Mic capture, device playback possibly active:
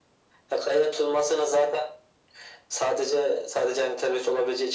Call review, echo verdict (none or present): present